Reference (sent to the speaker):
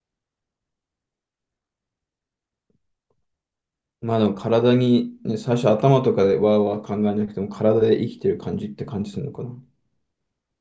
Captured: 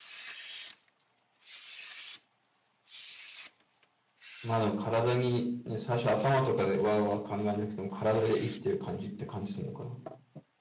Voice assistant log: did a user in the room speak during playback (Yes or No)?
No